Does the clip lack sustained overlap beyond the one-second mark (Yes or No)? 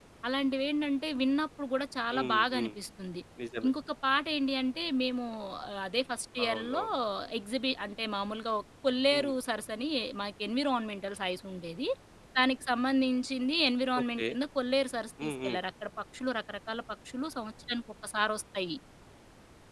Yes